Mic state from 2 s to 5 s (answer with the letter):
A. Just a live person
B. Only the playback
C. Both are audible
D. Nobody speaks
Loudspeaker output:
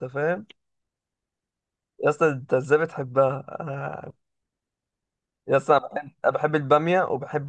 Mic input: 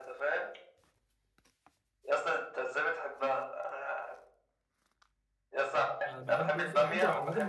B